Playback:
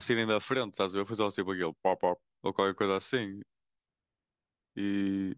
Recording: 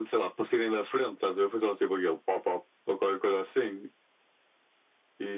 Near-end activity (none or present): none